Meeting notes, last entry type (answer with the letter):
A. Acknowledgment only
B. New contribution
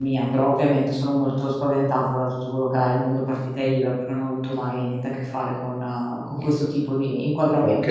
B